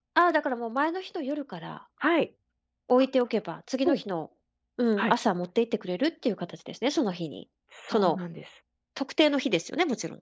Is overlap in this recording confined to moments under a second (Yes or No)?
Yes